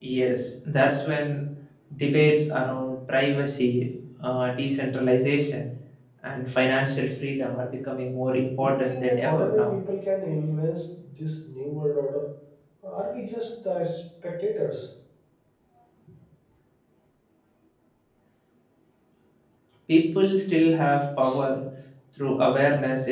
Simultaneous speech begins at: 9 s

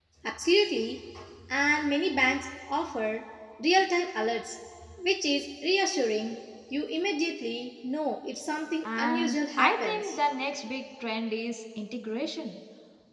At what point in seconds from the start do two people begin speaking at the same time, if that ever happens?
9 s

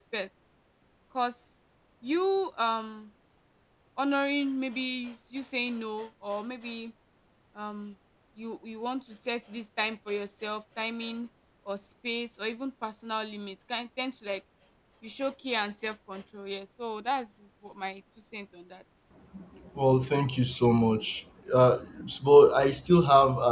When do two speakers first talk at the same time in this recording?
none

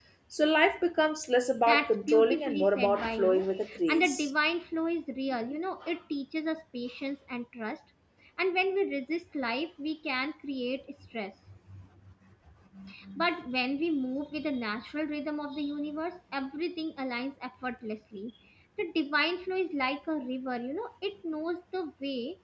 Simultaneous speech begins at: 2 s

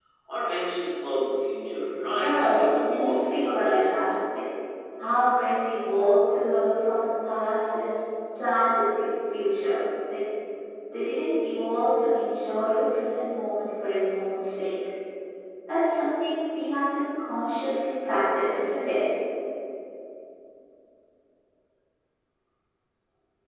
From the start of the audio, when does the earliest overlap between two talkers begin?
2 s

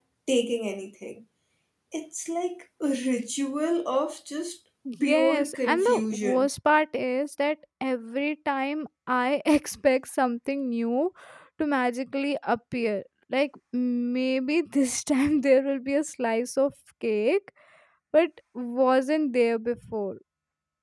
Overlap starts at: 5 s

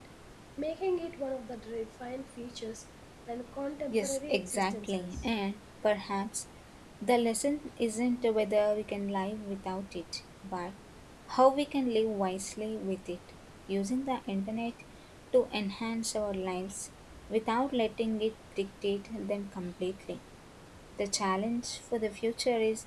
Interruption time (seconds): 4 s

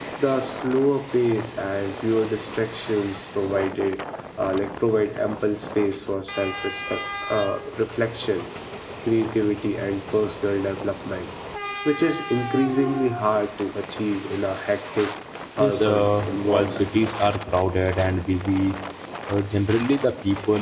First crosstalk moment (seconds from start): 16 s

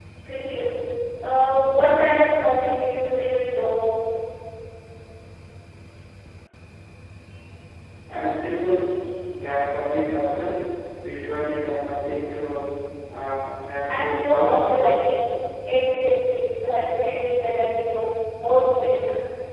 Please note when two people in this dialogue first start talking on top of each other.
14 s

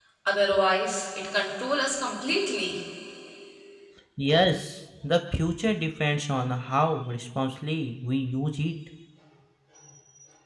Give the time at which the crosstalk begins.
none

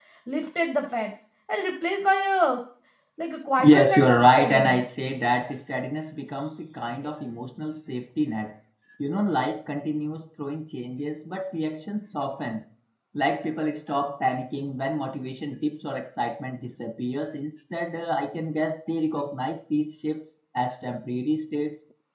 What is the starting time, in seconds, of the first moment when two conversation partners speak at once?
4 s

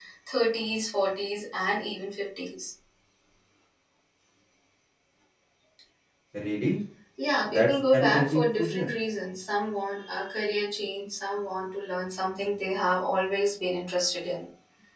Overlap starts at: 8 s

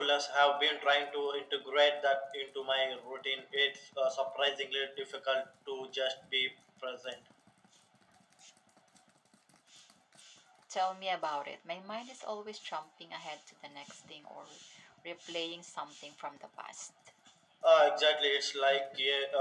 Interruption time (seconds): none

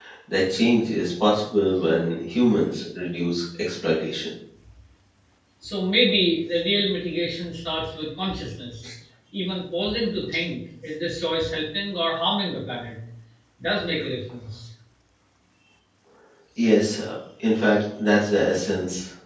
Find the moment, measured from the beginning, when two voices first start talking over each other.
none

